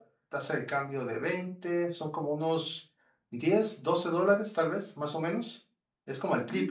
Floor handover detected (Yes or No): Yes